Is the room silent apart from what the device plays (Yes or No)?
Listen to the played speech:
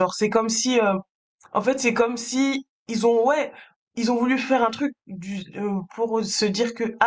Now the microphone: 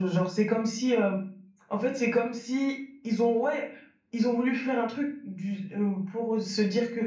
Yes